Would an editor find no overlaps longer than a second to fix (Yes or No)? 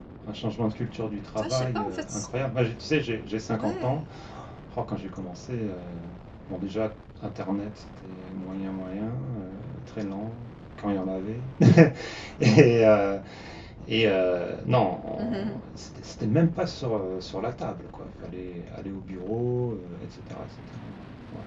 No